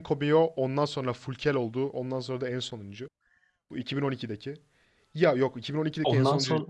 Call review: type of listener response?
listening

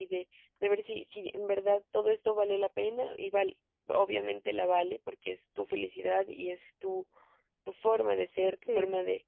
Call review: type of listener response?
listening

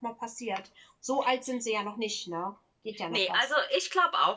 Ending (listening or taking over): taking over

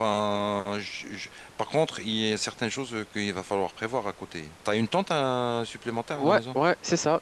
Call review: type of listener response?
taking over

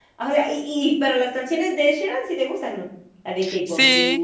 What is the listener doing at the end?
taking over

